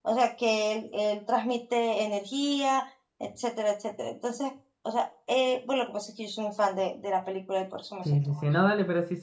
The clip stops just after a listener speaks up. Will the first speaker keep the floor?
No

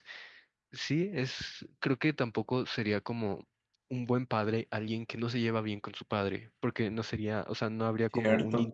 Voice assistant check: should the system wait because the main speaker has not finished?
Yes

